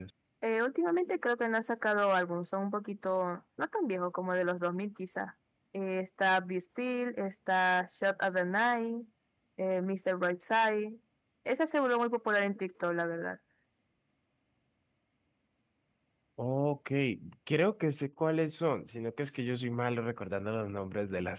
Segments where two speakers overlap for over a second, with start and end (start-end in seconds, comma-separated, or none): none